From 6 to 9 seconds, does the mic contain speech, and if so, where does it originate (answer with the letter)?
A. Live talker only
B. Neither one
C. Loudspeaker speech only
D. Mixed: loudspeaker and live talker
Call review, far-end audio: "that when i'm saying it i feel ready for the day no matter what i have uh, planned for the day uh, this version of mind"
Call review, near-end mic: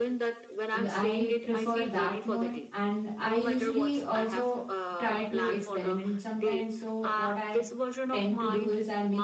D